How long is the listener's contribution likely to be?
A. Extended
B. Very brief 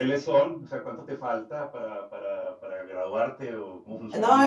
A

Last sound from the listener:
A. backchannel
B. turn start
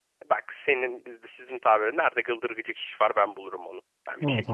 B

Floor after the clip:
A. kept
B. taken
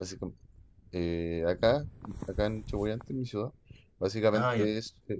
A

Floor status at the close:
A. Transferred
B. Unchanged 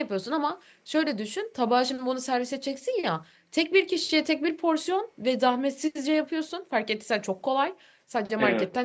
B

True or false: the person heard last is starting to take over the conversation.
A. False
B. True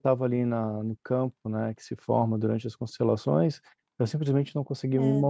A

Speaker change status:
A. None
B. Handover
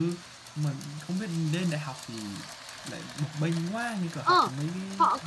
B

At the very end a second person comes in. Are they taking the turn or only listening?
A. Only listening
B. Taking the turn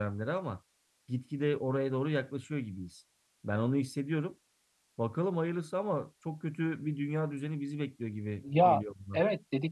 B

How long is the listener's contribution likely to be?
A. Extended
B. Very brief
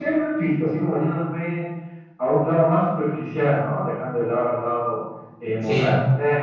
B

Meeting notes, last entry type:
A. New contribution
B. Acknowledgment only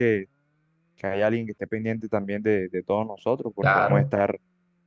B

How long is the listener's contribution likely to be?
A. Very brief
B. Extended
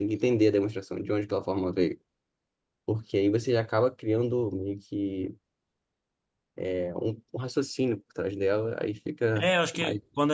B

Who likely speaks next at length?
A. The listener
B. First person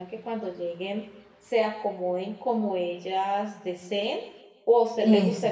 B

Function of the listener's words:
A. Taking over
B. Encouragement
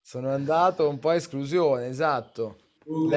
A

